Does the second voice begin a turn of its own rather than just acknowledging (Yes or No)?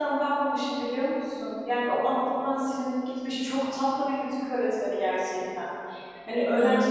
No